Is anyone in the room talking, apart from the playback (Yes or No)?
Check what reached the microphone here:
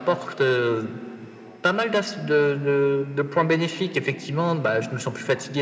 No